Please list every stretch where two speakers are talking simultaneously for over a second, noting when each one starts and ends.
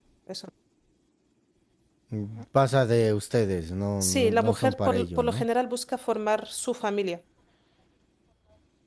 4.0-5.5

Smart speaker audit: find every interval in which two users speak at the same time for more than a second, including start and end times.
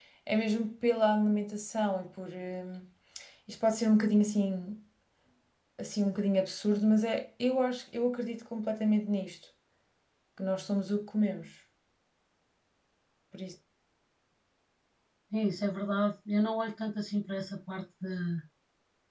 none

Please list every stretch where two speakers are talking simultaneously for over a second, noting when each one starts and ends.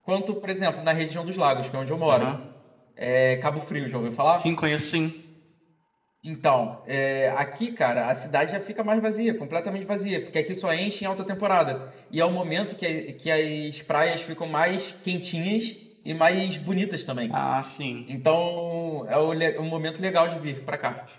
none

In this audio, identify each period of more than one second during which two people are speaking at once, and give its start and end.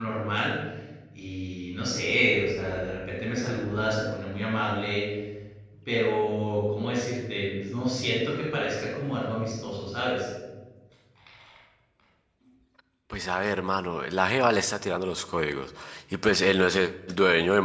none

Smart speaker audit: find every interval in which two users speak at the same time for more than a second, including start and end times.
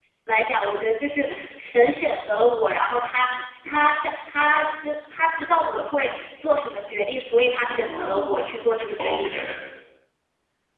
7.7-9.3

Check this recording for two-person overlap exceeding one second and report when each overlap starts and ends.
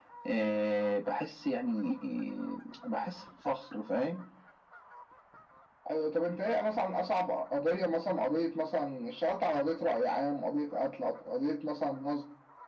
none

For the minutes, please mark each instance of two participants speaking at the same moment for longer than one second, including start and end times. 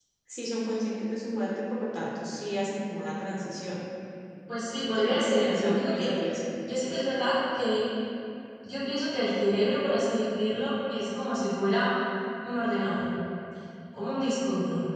4.8-6.1

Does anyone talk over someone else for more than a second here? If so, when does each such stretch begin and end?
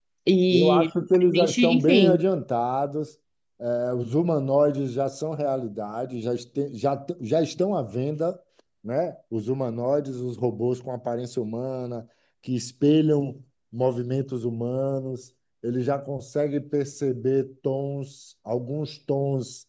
0.5-2.2

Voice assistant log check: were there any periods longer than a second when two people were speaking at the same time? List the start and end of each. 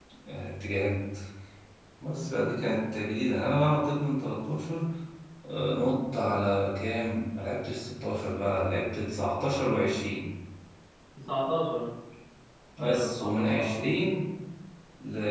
12.8-14.2

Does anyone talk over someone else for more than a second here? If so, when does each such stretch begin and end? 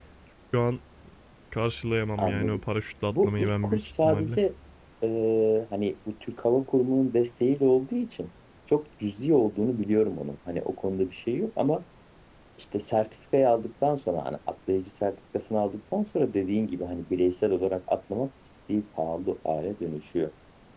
3.1-4.4

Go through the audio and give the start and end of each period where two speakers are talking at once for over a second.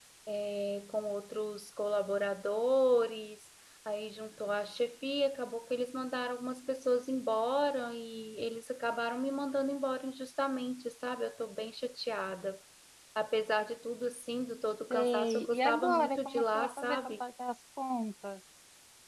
14.9-17.1

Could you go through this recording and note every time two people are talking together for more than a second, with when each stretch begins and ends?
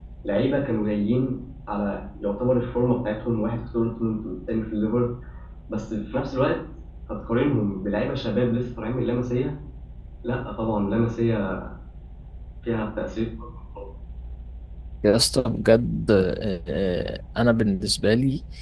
none

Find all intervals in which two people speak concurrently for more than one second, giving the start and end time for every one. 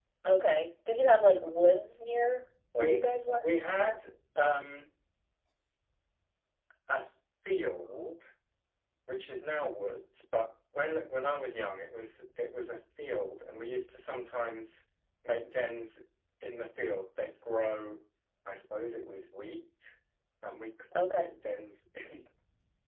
none

